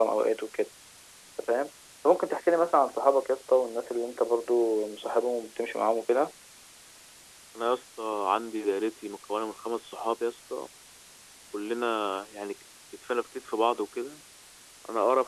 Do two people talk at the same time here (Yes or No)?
No